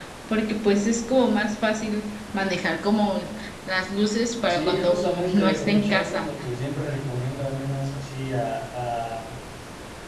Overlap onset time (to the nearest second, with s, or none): 4 s